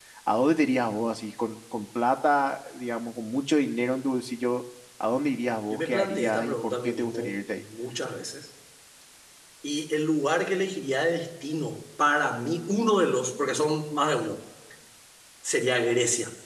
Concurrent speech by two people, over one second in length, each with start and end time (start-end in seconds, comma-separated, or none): 5.7-7.6